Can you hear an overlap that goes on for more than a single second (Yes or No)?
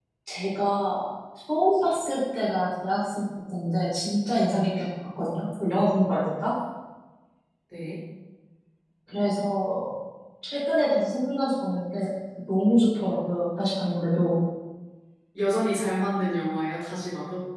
No